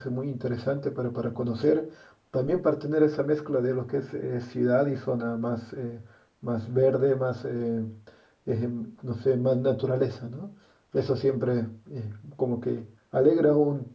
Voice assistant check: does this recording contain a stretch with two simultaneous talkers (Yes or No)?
No